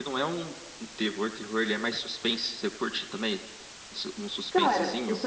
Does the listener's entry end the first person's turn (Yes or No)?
Yes